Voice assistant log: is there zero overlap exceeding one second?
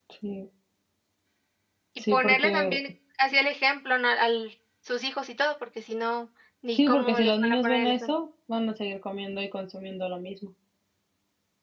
No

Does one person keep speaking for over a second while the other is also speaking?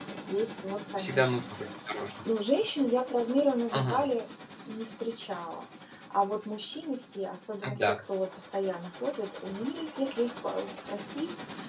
No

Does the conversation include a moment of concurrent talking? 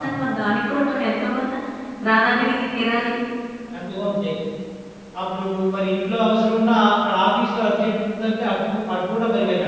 No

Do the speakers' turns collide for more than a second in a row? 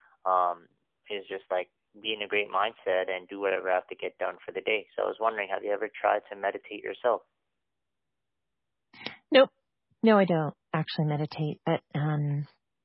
No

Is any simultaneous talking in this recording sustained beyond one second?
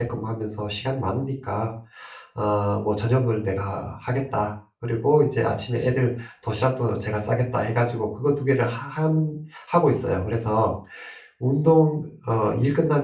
No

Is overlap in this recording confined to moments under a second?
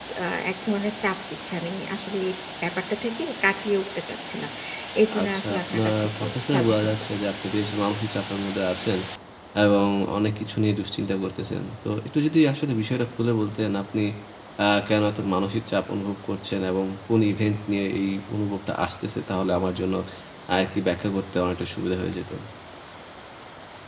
No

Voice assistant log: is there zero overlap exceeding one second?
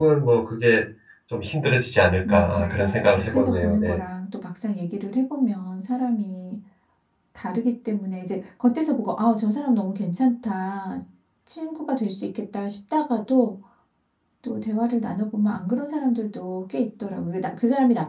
No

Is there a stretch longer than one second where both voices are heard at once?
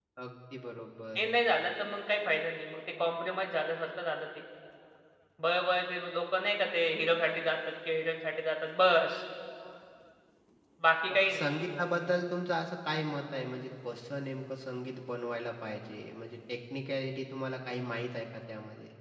No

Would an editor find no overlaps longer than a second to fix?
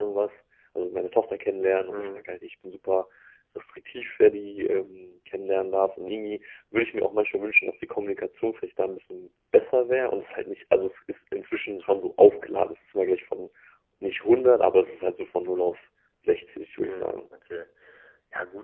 Yes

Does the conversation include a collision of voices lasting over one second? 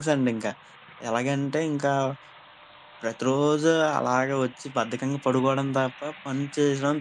No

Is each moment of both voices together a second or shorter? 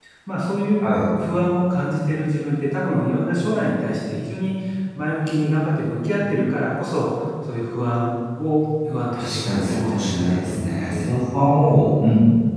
No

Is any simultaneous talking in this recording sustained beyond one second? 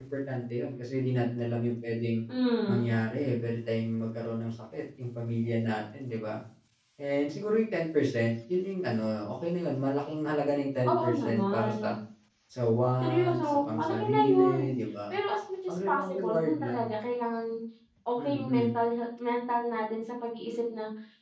Yes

